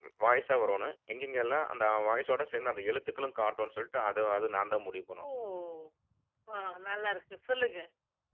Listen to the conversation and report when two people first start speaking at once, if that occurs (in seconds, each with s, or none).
none